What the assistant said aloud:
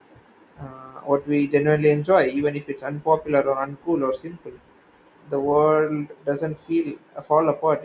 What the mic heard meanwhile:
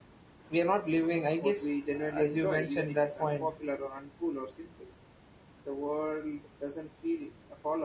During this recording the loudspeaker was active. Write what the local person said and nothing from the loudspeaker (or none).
we are not living i guess as you mentioned that point